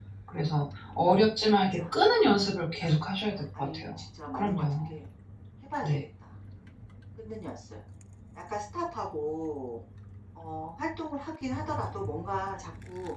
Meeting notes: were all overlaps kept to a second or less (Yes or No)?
Yes